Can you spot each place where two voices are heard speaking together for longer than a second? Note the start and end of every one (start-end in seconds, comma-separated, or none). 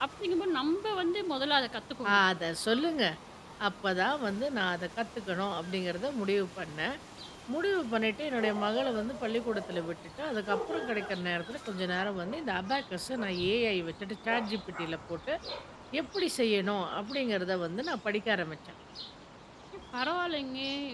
none